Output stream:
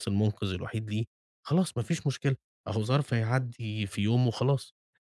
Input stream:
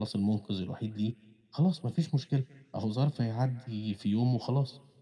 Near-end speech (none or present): none